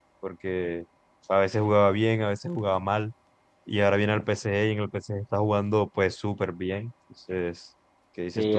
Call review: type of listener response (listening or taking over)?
taking over